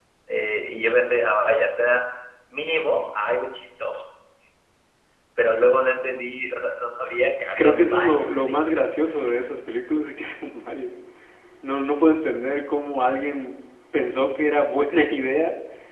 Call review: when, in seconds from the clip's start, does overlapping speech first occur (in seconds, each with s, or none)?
7.6 s